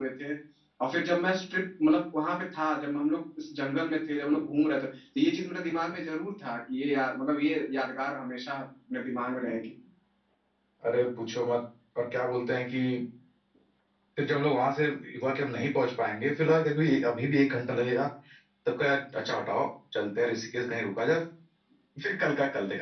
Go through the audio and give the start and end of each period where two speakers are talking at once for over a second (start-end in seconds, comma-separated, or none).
none